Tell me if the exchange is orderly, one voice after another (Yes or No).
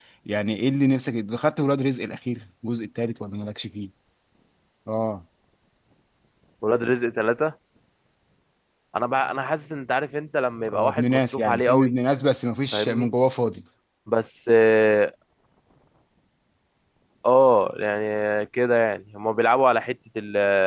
No